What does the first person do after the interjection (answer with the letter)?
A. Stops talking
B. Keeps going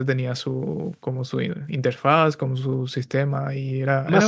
A